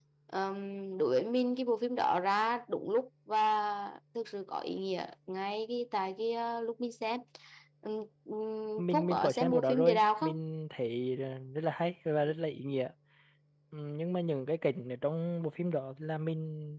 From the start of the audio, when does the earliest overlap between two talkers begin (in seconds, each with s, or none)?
8.9 s